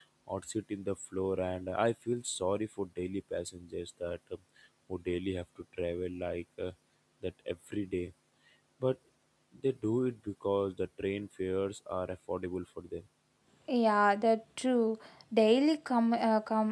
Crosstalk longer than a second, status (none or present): none